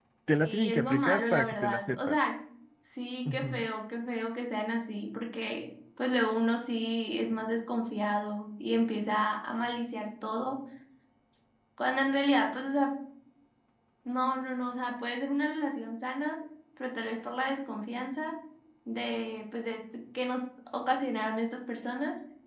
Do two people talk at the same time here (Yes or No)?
Yes